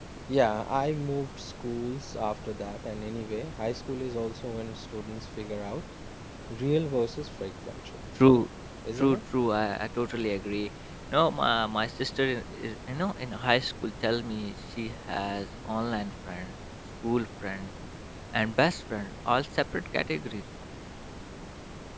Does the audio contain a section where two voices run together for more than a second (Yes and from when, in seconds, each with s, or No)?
No